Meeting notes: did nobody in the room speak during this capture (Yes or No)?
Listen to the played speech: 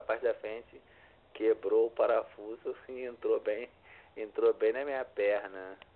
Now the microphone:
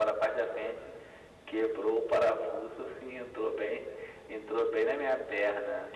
Yes